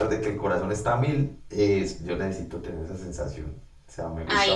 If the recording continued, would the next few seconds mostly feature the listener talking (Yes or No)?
Yes